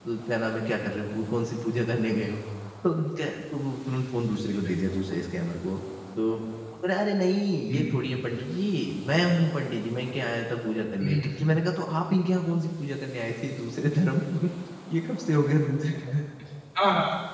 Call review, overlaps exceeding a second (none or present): none